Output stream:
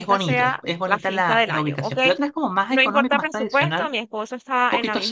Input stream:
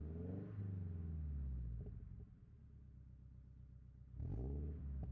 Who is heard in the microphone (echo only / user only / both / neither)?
neither